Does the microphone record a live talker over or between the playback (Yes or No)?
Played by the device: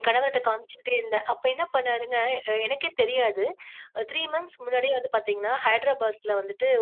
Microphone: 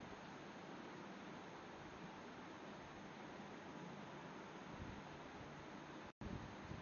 No